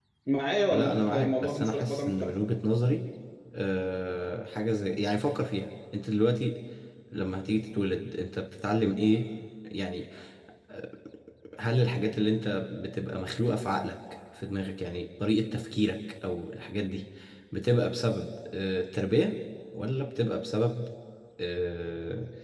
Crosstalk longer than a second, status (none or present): present